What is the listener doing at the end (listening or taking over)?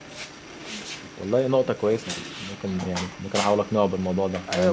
taking over